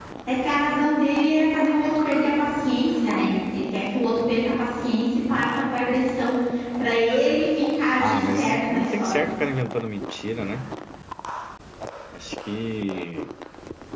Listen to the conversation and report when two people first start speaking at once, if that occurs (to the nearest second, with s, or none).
8 s